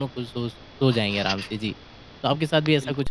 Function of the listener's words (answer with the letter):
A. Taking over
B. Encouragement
A